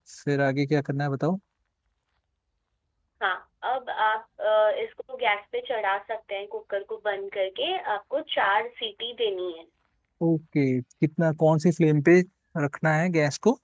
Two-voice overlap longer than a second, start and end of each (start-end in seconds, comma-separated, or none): none